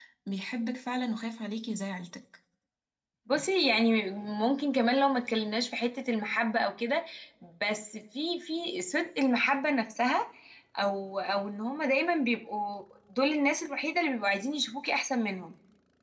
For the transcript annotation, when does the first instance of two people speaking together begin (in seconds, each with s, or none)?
none